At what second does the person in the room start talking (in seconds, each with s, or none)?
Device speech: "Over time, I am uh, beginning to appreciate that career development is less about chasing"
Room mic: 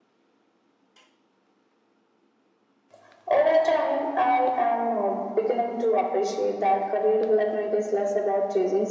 none